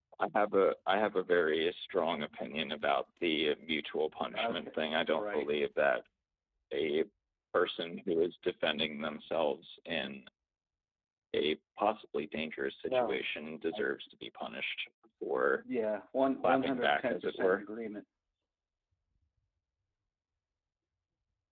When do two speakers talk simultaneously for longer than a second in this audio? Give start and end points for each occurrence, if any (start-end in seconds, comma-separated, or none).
16.4-17.6